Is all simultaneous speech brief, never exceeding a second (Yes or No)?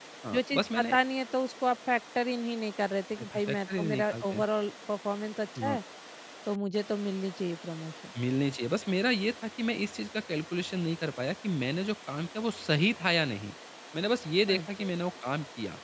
No